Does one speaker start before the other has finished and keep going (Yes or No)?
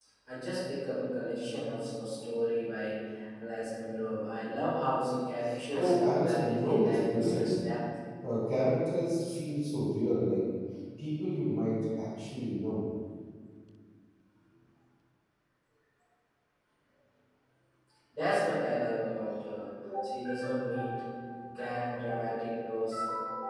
Yes